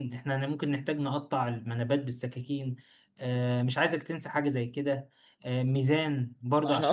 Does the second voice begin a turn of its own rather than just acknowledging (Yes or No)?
Yes